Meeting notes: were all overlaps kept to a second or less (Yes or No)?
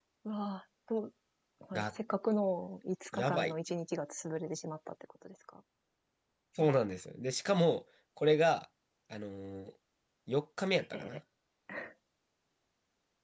Yes